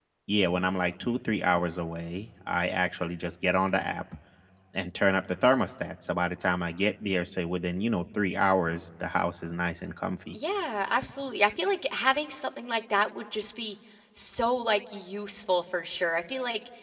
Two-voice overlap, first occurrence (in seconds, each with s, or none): none